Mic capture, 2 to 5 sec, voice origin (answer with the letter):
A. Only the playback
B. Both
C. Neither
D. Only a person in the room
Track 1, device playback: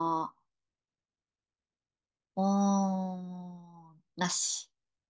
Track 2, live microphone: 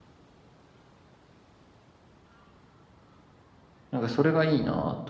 D